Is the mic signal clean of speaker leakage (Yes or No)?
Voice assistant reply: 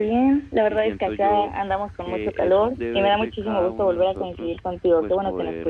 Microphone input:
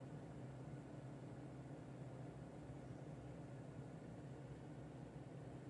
Yes